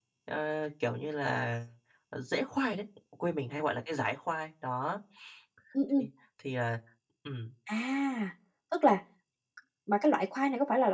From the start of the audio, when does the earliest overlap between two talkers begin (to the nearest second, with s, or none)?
none